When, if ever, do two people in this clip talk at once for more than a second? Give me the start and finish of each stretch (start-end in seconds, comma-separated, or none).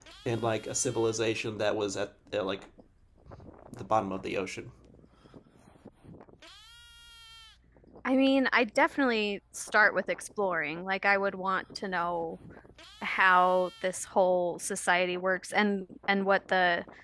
none